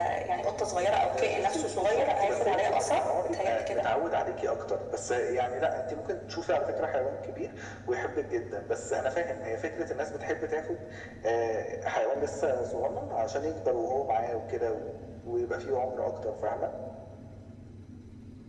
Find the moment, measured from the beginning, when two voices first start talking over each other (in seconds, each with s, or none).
1.1 s